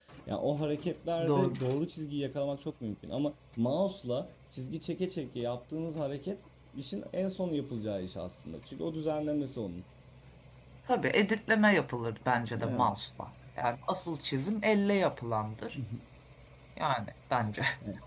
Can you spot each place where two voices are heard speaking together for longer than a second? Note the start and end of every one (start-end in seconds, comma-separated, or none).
none